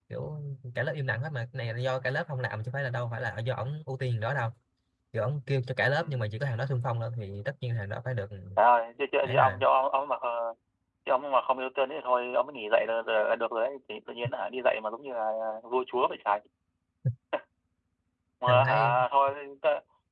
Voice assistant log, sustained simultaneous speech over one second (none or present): none